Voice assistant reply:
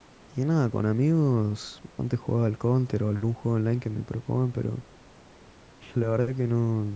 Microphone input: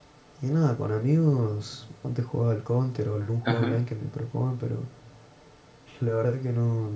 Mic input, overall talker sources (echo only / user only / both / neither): both